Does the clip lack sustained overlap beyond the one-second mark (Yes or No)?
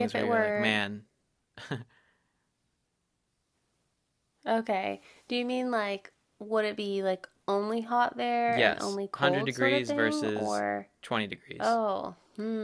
No